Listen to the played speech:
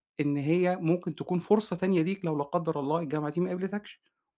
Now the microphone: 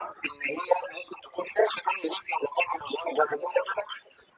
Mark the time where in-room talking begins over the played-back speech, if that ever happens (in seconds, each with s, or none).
none